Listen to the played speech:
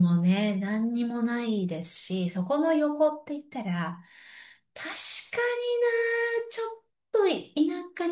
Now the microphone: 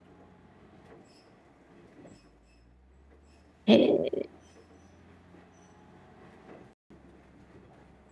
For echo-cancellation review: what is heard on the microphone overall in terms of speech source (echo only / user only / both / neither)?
user only